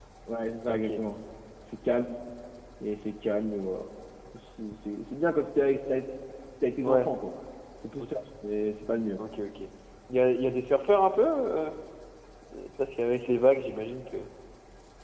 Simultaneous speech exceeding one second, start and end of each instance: none

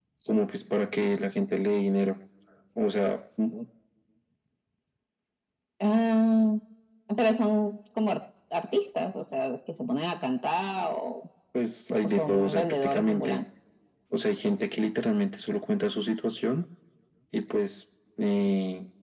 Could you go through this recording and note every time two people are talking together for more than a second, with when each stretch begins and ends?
12.0-13.4

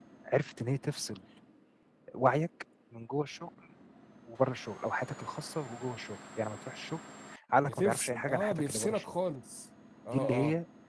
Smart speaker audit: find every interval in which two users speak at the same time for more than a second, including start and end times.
7.6-9.1

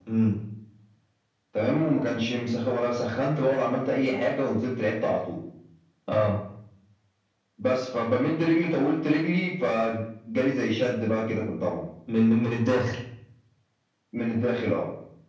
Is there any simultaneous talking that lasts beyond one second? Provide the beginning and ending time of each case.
none

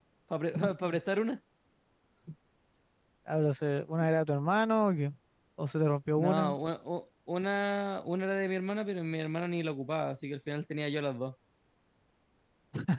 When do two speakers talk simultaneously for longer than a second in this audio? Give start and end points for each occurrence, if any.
none

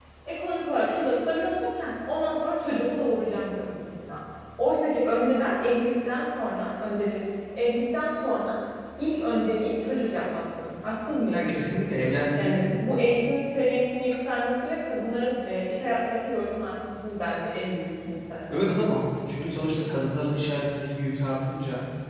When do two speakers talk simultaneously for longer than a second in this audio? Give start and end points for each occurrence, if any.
none

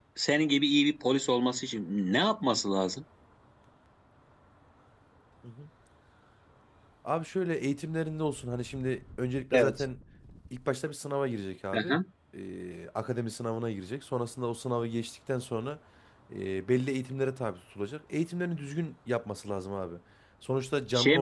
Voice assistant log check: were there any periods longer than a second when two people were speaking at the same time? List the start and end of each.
none

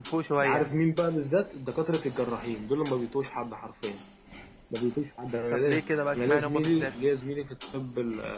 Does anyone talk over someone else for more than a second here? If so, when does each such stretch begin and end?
5.5-6.9

